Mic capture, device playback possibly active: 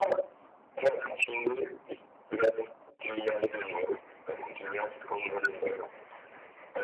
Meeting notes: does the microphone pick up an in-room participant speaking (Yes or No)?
No